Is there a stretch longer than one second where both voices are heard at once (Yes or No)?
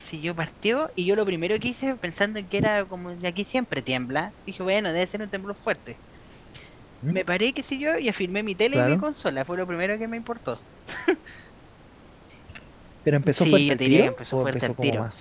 Yes